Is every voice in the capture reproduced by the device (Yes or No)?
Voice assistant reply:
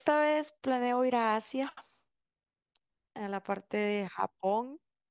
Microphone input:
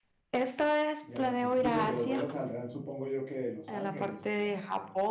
No